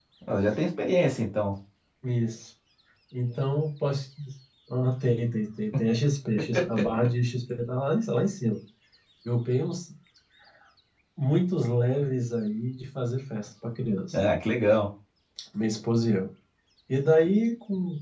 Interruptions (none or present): none